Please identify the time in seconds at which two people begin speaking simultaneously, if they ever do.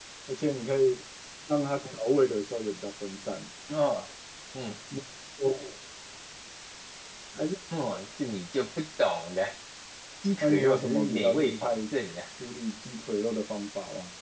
10.4 s

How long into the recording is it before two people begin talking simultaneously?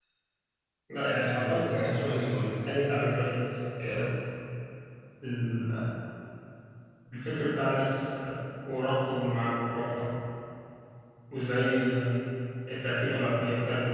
1.2 s

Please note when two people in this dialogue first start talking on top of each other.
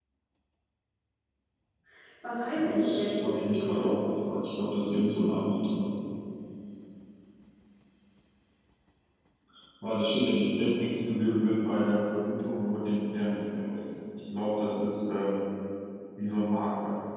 2.6 s

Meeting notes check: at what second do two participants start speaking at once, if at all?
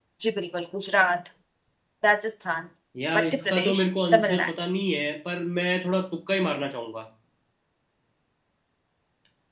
3.2 s

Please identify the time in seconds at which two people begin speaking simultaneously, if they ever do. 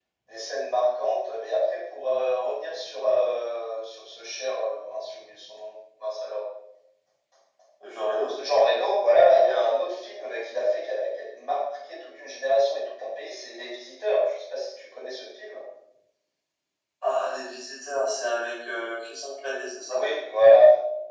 none

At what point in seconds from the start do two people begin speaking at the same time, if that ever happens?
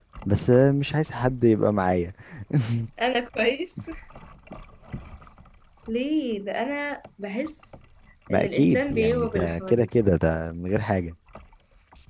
8.3 s

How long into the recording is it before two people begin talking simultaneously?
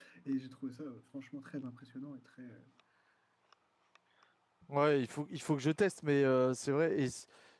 none

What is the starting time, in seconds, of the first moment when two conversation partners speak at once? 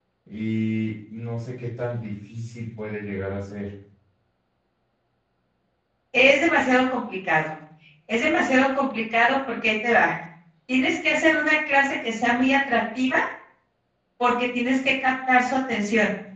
none

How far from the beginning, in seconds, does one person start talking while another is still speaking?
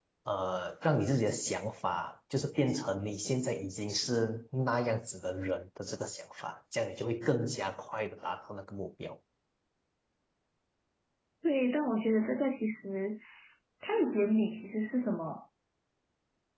none

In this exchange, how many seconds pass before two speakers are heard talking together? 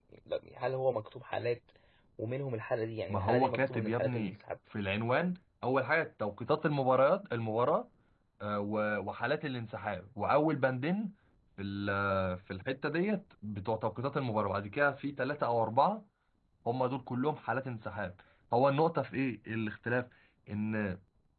3.1 s

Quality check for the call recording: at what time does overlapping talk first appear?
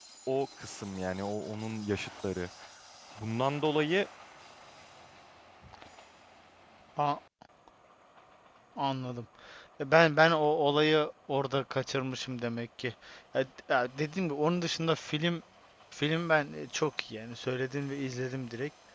none

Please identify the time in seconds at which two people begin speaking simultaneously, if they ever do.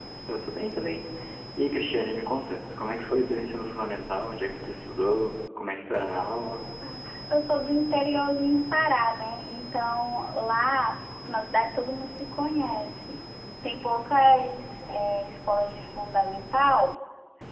none

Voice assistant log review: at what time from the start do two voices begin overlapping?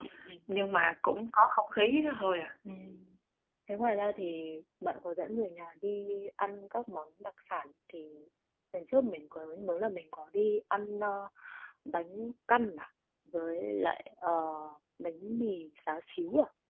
none

